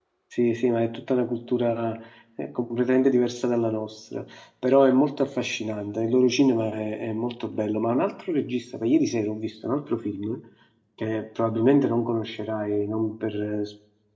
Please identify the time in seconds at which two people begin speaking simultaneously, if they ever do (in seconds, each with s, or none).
none